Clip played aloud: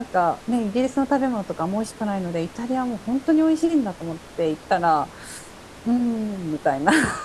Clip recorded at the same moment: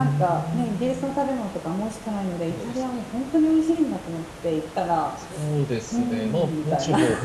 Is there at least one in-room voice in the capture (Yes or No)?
Yes